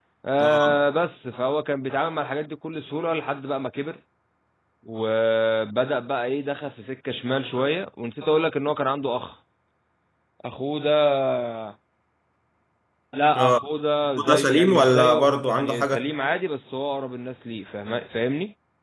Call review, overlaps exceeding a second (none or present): present